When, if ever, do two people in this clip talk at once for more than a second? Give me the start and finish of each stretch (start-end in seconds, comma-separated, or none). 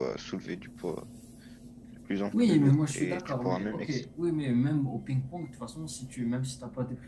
2.3-4.0